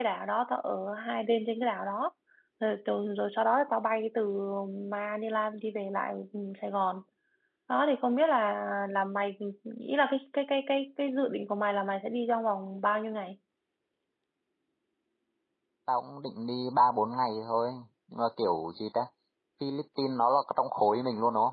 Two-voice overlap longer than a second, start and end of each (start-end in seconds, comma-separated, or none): none